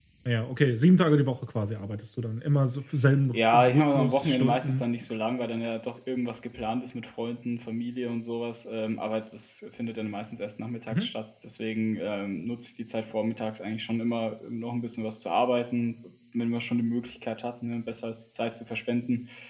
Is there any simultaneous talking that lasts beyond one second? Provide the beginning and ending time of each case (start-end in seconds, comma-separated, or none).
3.3-4.8